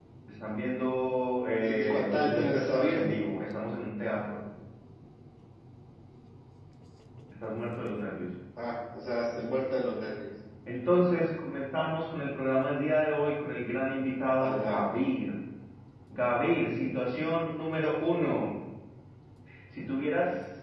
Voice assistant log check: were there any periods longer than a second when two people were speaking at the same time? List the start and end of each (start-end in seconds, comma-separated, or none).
1.6-3.2